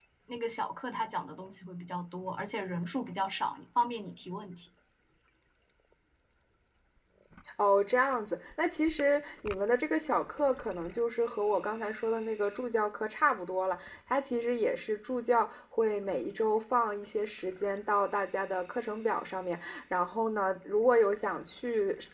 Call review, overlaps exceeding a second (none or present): none